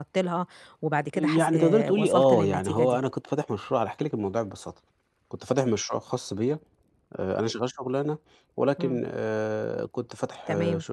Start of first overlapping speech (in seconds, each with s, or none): 1.1 s